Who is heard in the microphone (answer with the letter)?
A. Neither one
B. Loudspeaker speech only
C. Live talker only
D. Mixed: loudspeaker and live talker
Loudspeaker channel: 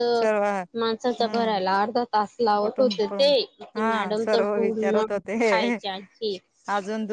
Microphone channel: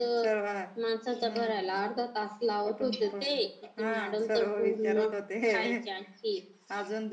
B